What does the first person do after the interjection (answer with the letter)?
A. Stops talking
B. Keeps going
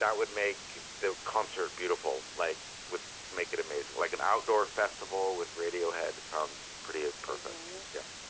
A